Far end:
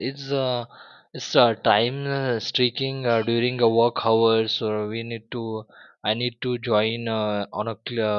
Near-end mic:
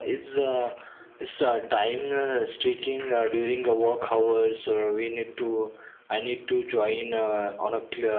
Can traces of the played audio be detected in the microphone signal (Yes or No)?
Yes